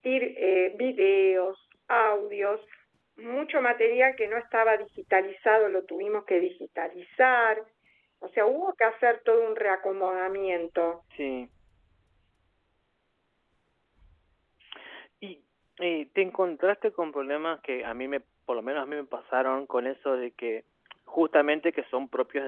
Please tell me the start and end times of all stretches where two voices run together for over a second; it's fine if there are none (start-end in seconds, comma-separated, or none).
none